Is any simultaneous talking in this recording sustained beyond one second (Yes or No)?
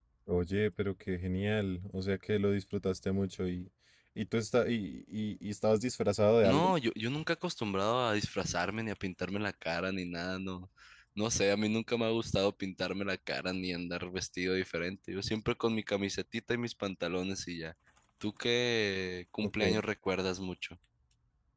No